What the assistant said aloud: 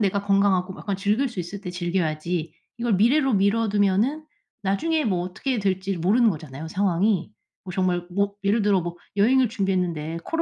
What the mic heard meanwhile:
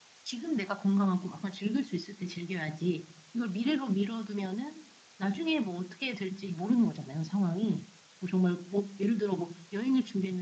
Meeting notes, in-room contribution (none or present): none